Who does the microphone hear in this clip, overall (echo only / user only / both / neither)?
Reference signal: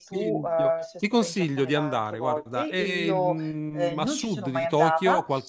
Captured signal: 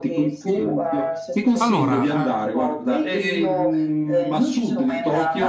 both